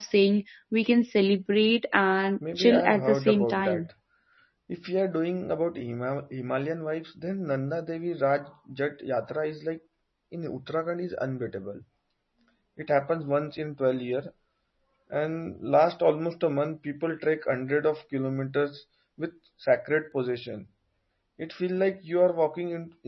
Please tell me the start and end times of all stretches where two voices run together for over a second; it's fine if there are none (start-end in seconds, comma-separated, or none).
2.6-3.9